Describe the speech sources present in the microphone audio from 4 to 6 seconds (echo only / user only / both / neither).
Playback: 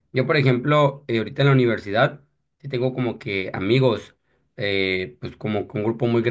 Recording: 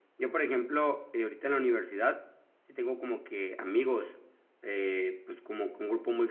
echo only